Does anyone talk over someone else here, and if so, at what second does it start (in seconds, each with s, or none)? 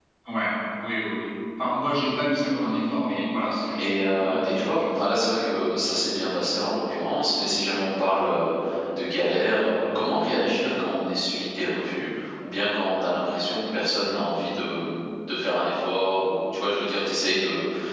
3.8 s